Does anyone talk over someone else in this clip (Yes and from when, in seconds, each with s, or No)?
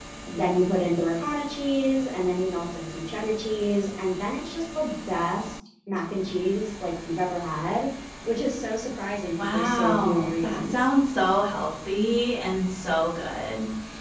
Yes, from 9.4 s